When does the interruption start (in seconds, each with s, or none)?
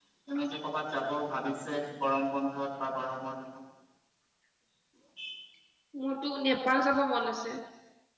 none